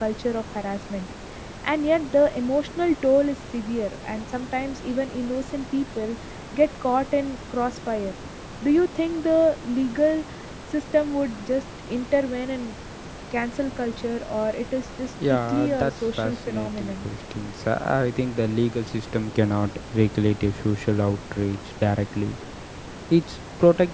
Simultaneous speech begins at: 15 s

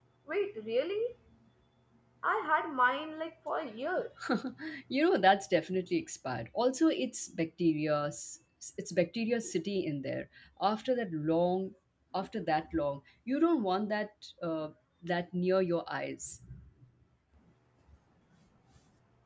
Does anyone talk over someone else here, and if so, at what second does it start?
none

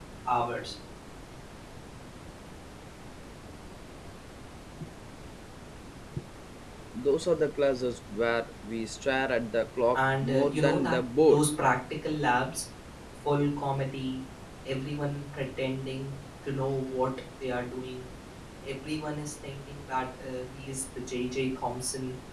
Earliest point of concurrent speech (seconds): 10 s

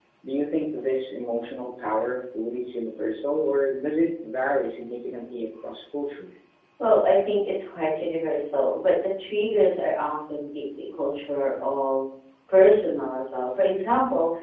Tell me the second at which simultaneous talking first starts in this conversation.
none

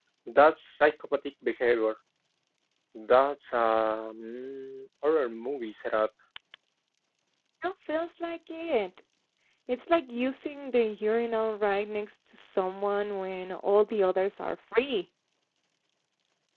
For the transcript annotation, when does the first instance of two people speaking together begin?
none

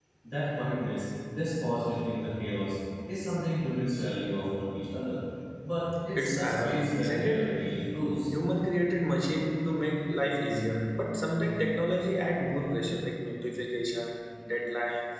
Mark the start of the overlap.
6 s

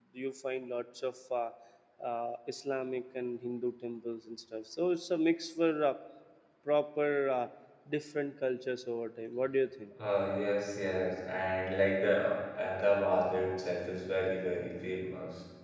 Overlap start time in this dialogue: none

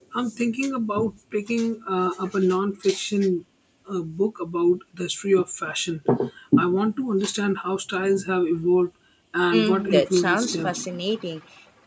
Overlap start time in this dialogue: 10 s

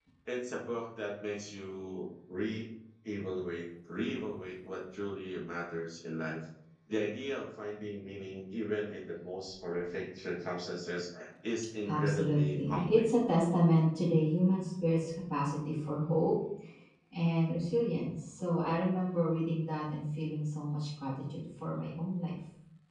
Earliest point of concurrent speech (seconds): 12 s

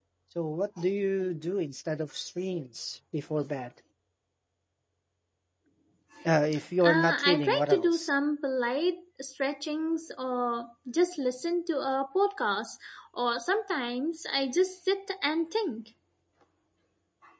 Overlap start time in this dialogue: 7 s

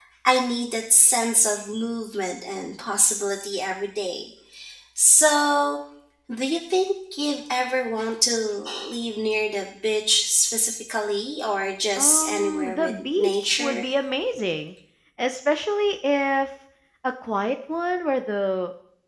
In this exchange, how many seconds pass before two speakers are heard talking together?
12 s

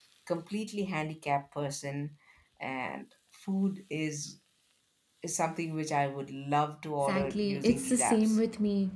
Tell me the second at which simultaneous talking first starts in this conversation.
7 s

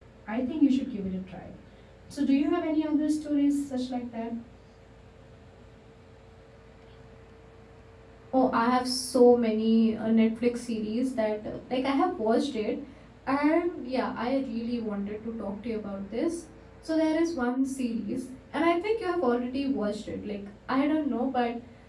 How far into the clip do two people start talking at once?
none

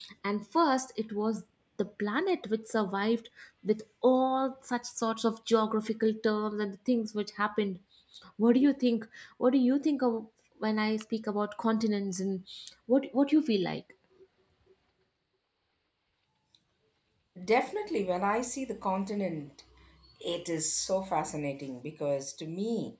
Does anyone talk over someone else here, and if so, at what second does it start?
none

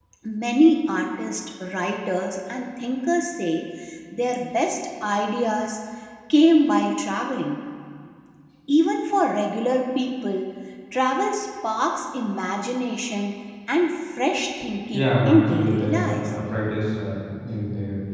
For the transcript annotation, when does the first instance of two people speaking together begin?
15 s

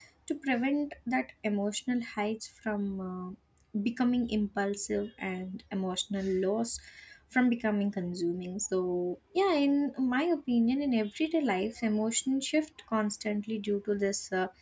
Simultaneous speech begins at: none

